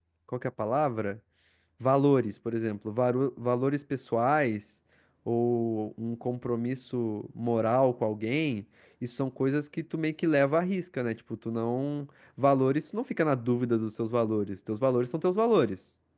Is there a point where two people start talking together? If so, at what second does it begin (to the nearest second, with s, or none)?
none